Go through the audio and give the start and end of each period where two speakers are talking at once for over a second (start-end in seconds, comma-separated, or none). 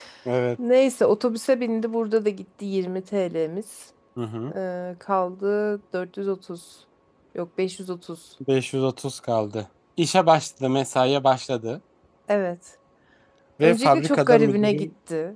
13.6-14.9